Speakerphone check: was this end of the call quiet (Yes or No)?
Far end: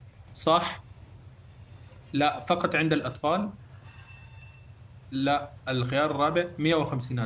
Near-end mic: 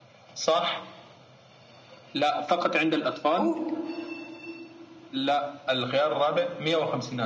No